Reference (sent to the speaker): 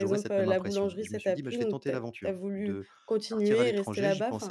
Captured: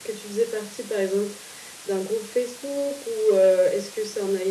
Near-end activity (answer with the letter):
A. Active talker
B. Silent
A